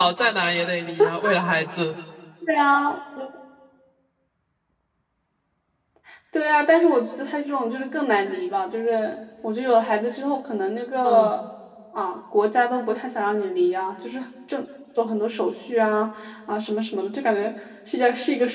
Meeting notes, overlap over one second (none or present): none